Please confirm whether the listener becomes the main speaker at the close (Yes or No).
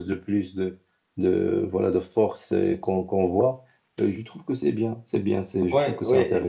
Yes